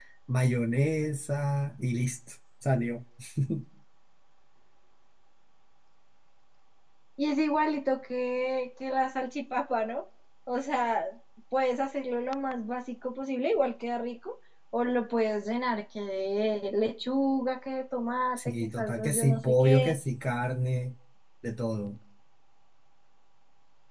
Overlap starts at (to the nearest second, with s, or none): 18 s